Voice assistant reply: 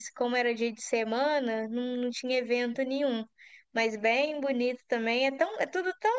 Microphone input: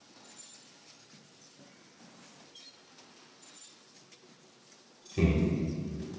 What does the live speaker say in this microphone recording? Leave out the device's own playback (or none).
Sim.